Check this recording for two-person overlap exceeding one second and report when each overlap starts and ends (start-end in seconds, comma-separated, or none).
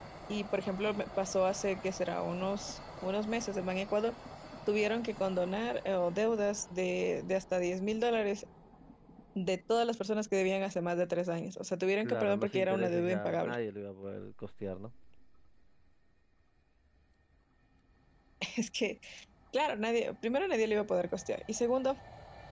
12.0-13.6